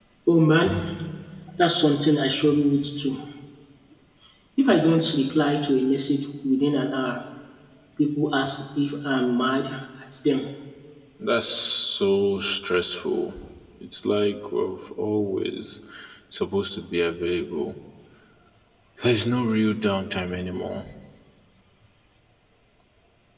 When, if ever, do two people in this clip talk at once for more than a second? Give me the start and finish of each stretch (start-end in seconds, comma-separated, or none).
none